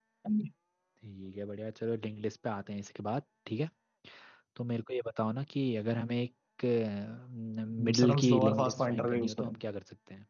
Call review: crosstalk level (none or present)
present